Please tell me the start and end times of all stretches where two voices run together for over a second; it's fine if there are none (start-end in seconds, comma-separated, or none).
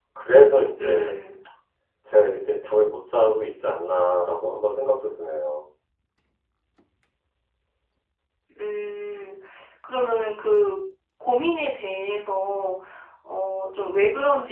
none